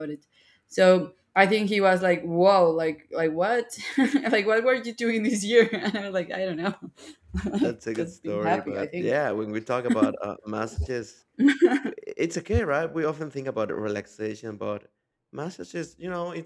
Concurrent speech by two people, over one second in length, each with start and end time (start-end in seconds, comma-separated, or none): 7.6-9.1